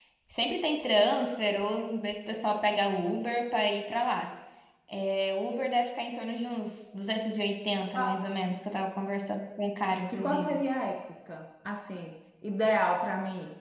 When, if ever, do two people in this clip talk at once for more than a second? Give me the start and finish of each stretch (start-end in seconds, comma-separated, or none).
none